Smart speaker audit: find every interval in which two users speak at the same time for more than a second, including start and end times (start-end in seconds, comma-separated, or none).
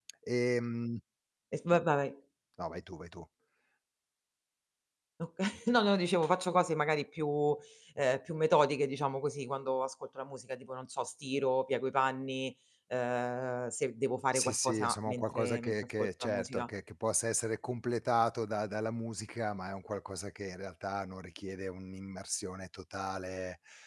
14.3-16.7